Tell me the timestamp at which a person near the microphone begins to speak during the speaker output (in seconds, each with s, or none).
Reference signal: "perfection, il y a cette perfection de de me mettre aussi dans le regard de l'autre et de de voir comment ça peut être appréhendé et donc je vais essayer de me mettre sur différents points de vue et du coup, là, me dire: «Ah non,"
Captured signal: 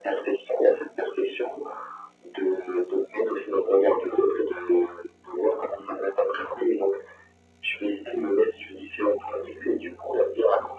none